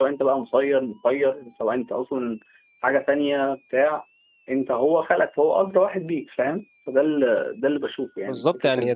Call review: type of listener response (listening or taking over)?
taking over